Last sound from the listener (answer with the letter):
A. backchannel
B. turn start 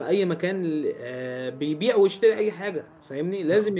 A